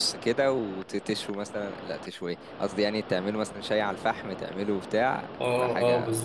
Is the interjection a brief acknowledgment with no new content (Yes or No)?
No